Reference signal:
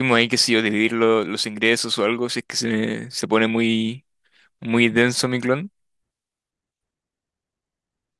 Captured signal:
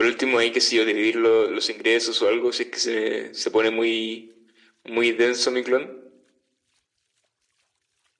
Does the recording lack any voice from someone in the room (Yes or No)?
Yes